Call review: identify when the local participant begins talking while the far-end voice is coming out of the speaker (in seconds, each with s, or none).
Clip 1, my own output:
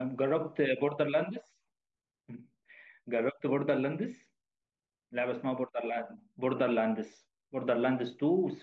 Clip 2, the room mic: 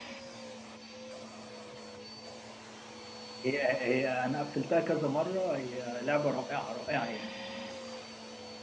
3.4 s